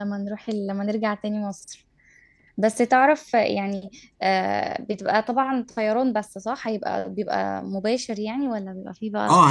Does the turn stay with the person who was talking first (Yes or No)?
No